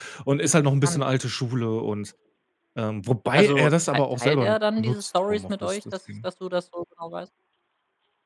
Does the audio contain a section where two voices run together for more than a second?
Yes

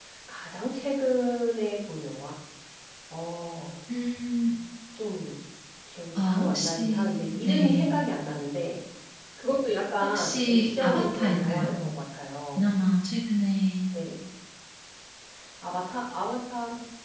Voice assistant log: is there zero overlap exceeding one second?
No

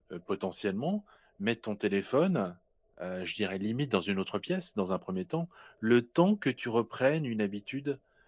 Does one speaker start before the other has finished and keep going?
No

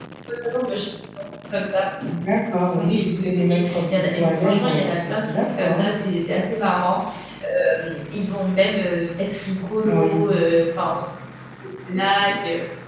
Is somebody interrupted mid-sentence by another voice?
Yes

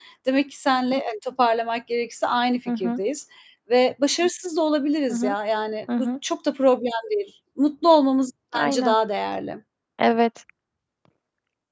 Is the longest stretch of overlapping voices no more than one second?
Yes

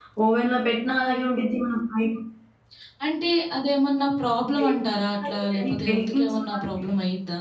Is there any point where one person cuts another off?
Yes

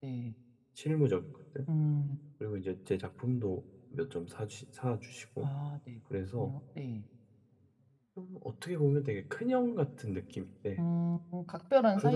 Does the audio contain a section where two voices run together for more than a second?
No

